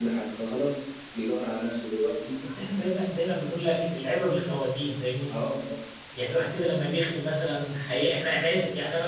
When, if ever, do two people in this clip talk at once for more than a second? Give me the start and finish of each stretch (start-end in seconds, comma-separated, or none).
none